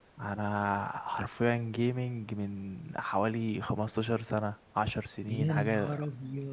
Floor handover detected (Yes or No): Yes